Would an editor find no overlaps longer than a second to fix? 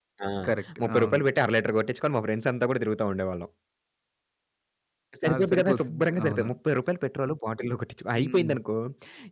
No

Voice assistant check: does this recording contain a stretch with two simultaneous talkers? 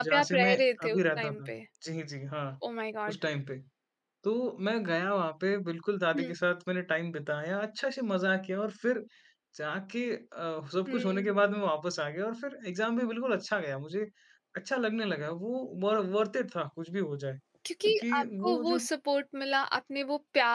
Yes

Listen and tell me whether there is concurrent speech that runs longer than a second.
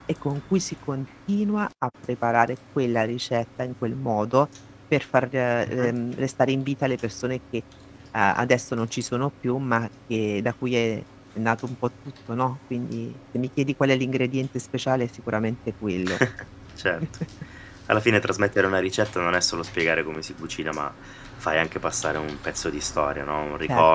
No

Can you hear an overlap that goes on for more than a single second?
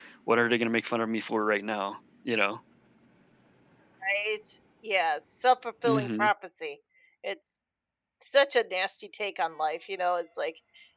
No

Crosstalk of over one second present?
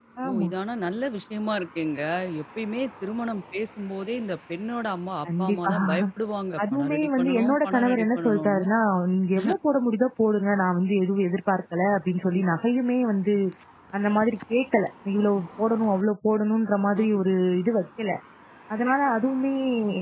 Yes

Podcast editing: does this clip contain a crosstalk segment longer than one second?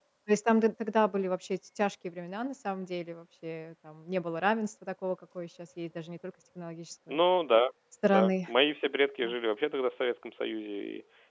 No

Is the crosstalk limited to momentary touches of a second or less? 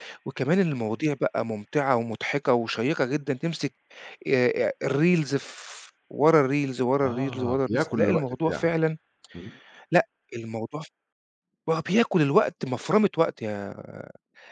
No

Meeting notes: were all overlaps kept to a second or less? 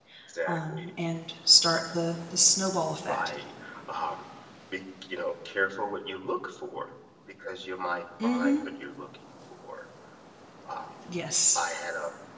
Yes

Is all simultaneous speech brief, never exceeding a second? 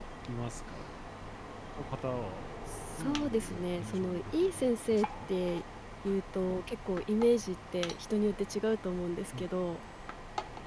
No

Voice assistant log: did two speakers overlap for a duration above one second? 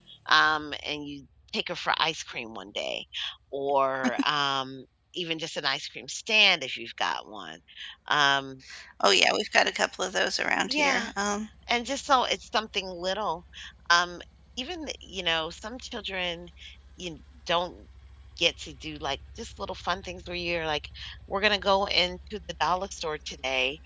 No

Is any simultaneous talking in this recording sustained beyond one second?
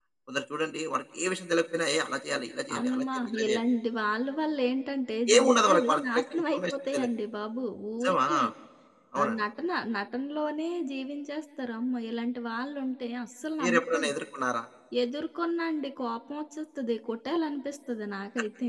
Yes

